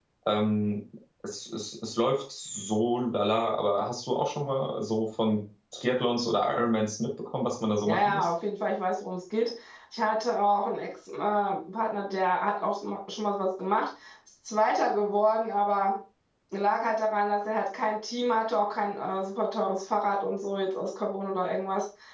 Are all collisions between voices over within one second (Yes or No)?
Yes